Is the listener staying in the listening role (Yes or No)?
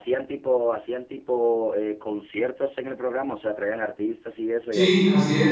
No